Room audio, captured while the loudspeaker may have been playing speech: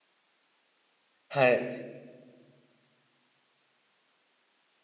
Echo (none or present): none